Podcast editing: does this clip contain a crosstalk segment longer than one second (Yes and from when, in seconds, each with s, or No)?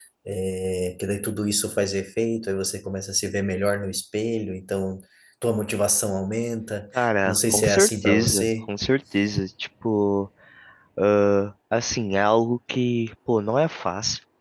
Yes, from 7.3 s